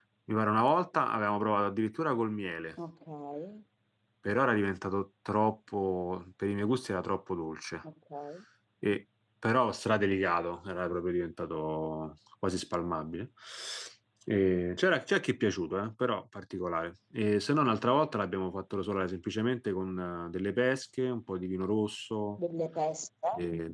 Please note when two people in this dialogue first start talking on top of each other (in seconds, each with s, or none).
none